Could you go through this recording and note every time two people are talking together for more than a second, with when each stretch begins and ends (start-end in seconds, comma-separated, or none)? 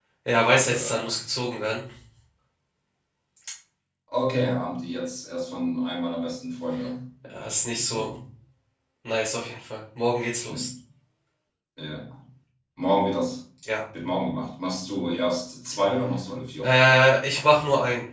none